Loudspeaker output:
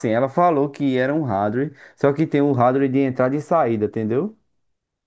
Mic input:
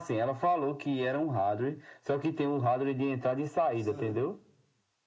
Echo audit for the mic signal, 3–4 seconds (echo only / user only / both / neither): both